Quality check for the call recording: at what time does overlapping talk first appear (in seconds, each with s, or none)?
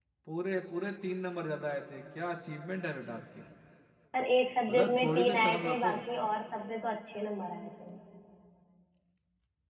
4.7 s